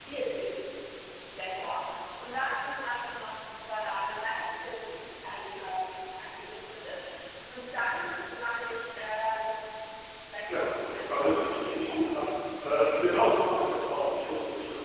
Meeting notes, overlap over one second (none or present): present